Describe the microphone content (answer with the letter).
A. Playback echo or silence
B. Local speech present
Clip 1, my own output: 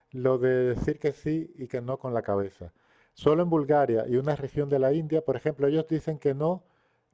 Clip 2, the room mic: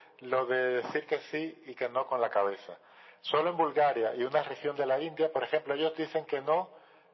A